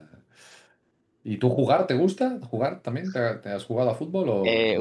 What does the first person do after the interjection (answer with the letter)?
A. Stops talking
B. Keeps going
A